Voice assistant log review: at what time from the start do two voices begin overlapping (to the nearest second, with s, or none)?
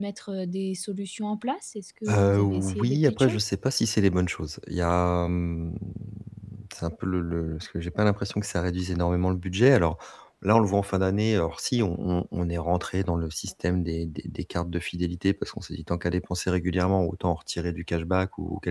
2 s